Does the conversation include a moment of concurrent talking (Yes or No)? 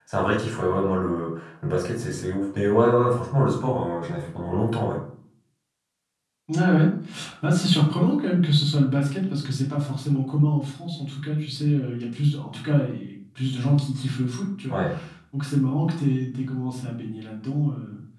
No